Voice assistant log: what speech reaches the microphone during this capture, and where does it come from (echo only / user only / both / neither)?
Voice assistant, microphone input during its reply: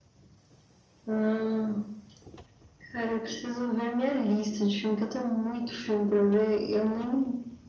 echo only